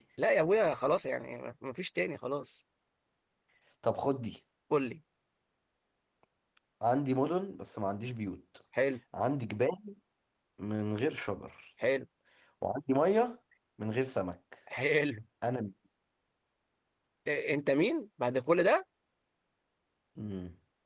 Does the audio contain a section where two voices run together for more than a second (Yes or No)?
No